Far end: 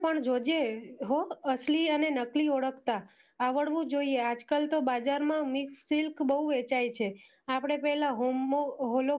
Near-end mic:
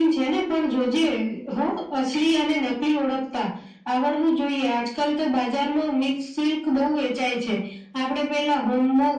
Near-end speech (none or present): none